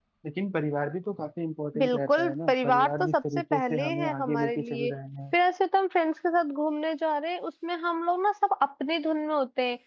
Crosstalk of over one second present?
Yes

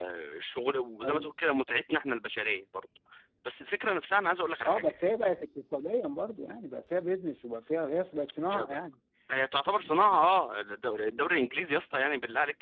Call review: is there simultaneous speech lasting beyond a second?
No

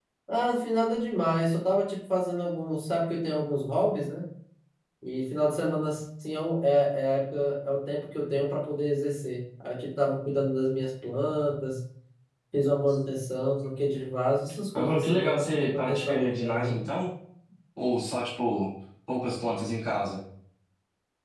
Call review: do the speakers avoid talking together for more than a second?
No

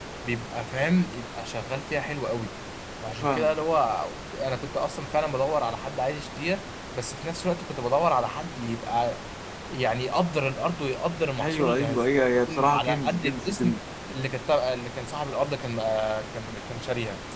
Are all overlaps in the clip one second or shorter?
No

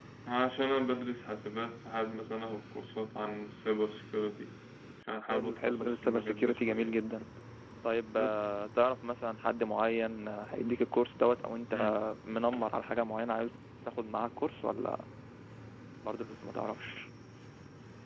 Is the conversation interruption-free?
No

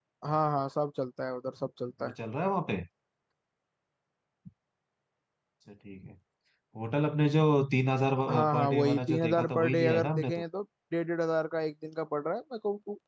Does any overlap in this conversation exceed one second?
Yes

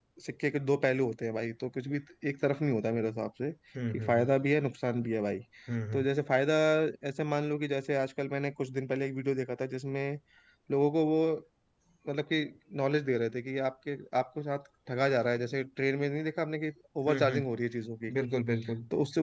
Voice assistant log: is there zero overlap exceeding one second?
Yes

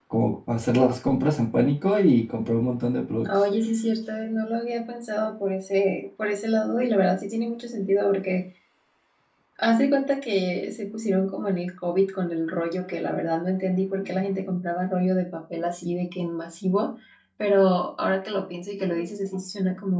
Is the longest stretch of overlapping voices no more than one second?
Yes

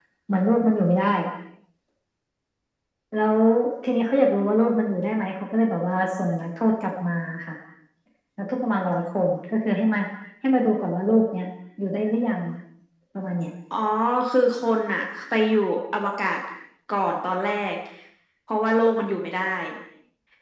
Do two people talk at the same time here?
No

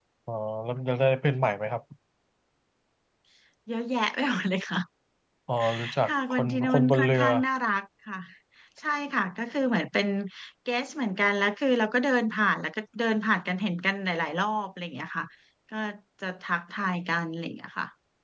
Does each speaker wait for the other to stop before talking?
No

